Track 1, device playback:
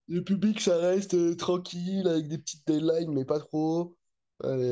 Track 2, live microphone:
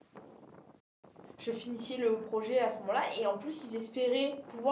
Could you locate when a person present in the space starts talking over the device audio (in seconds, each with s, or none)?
1.4 s